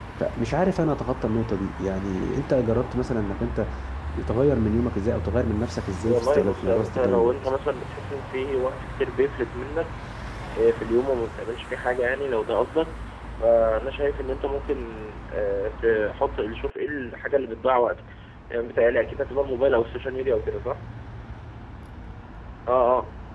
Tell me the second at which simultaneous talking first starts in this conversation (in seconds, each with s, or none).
6.0 s